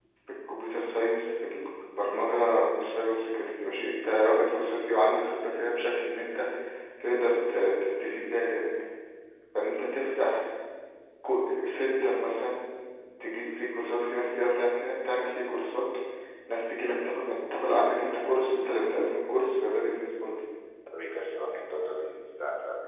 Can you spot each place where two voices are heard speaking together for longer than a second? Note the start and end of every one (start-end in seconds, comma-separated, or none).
none